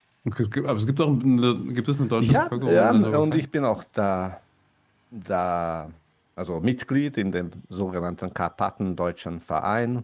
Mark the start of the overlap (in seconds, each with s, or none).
2.2 s